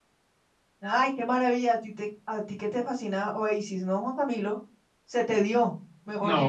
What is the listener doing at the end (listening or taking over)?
taking over